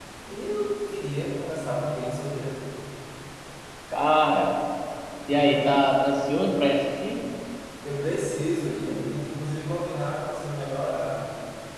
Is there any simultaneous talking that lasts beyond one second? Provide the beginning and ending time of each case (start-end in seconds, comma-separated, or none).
none